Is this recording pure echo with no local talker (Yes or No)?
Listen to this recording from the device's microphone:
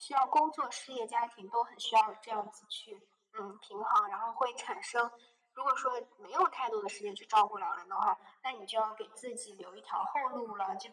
Yes